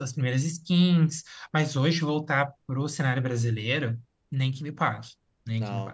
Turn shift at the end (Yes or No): Yes